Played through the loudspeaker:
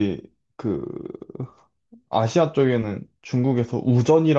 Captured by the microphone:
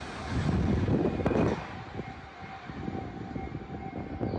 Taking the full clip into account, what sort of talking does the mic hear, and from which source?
neither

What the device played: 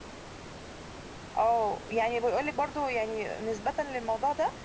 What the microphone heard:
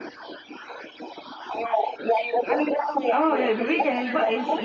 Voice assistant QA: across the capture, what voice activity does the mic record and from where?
both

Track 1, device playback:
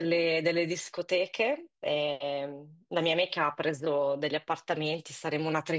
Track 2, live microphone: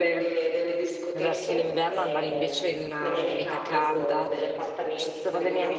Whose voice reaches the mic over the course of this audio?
both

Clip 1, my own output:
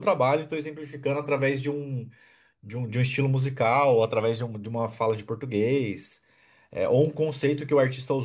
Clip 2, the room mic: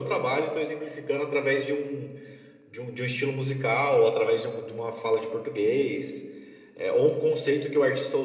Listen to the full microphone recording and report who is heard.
echo only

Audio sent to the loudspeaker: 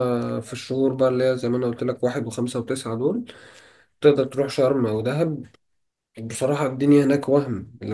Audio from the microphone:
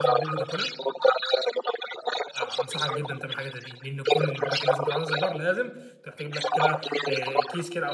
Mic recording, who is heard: both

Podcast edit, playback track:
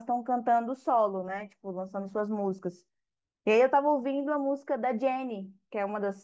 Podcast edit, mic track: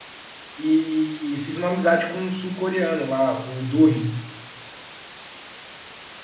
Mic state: user only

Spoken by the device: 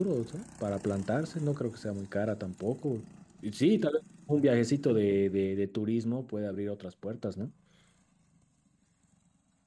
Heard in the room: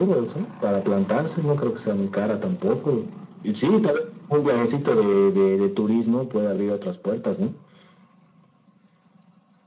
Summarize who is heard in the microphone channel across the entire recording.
echo only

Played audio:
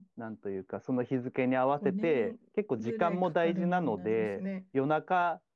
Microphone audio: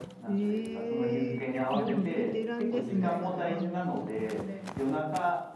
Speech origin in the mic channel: both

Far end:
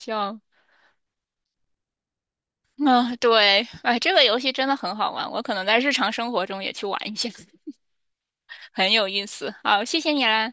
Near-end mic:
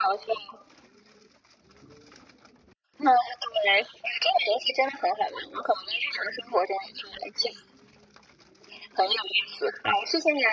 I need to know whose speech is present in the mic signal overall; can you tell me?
echo only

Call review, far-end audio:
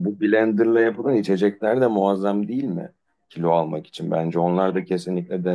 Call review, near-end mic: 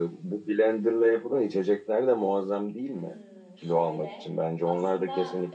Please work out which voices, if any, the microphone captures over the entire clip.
both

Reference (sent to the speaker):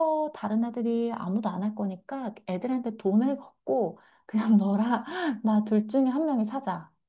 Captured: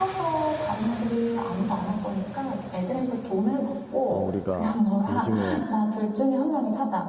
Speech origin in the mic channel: both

